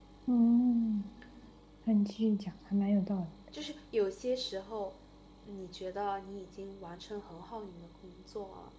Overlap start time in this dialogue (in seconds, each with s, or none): none